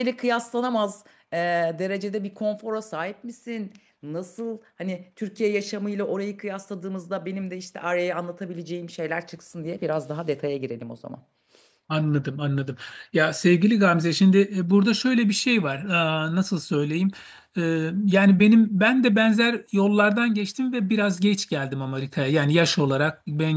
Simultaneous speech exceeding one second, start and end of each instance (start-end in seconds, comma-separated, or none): none